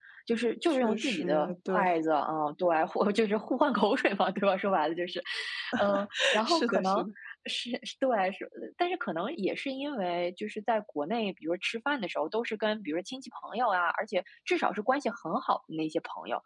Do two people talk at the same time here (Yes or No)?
Yes